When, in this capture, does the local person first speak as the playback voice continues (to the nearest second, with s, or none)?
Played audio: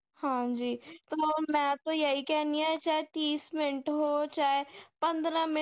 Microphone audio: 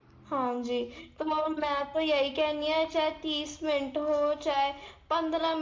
none